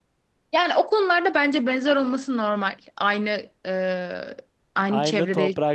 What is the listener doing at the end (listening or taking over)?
taking over